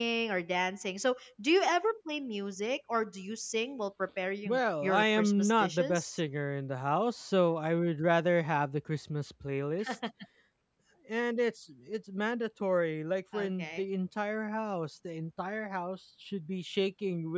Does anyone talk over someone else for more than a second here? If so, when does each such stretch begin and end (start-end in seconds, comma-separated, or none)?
4.5-6.2